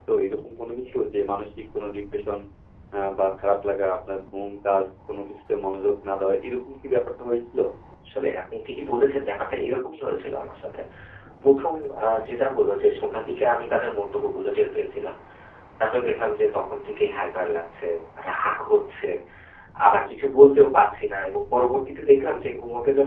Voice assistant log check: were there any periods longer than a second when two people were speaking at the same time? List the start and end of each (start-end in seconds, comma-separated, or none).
none